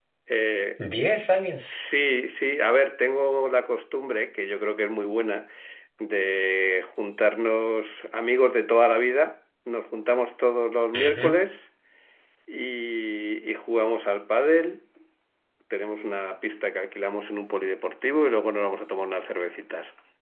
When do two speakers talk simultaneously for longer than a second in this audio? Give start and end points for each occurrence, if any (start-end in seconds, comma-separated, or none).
none